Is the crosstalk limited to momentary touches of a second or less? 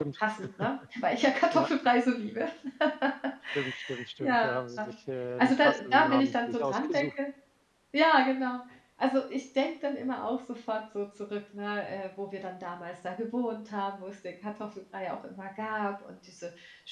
No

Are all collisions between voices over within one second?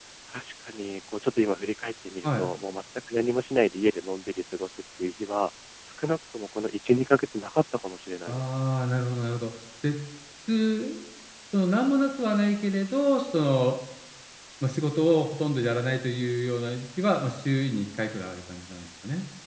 Yes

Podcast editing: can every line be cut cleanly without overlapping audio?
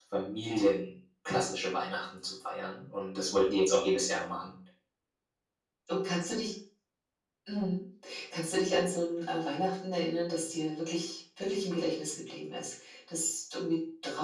Yes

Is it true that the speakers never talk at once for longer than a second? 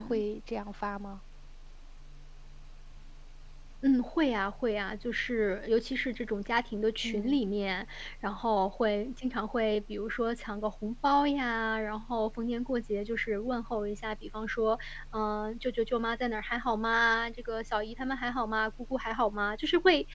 Yes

